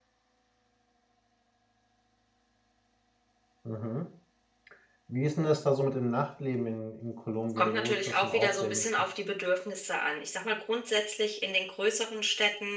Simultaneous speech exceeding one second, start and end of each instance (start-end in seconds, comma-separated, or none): 7.6-8.8